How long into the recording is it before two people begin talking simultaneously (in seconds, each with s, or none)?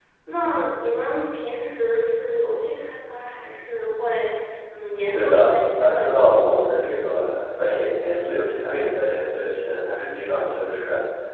5.1 s